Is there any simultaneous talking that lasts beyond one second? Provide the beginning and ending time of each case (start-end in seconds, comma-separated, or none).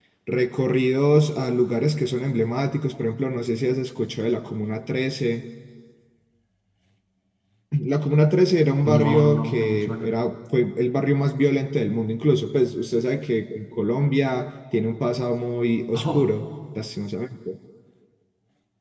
8.8-10.1